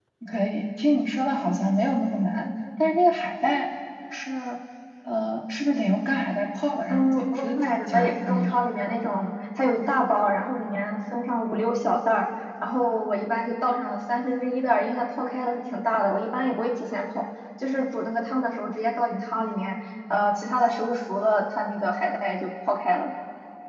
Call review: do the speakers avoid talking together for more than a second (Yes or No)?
No